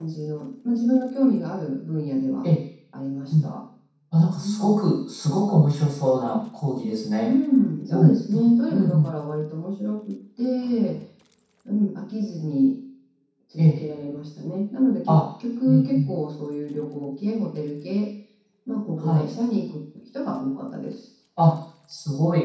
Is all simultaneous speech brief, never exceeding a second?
No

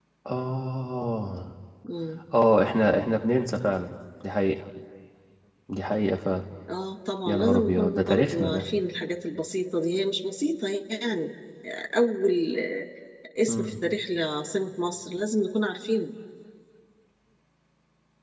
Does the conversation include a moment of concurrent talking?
Yes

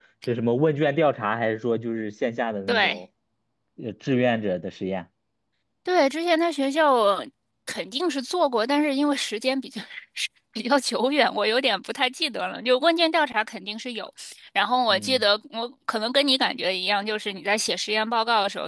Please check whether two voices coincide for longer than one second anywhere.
No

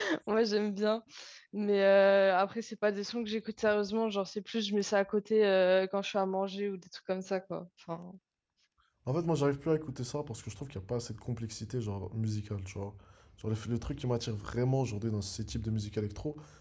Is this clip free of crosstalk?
Yes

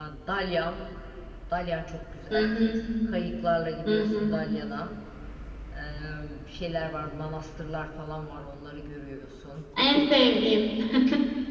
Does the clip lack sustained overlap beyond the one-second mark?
Yes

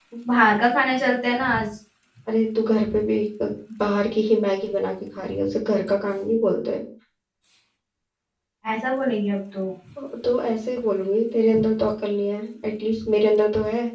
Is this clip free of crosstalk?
Yes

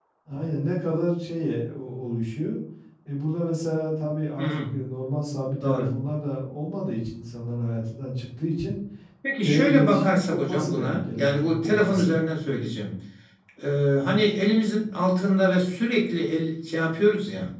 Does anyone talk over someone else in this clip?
Yes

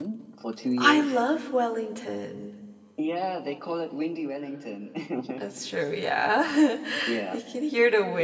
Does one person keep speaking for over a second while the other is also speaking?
No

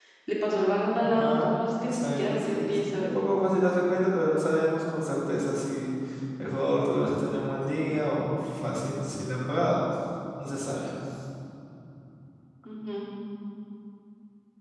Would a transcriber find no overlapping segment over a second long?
No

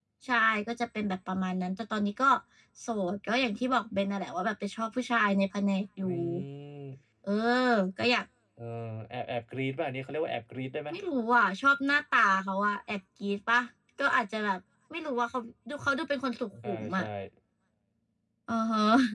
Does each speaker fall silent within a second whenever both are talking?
Yes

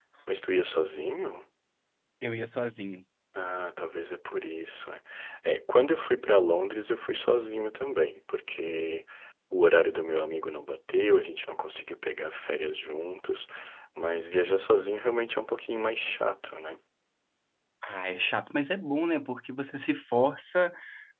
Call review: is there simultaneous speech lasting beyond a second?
No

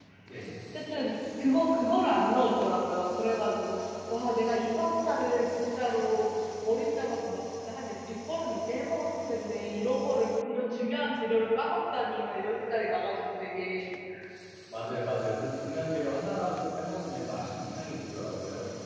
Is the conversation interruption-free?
Yes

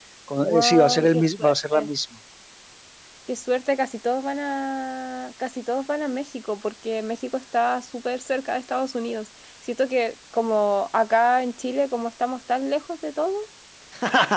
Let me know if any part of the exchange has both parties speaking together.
Yes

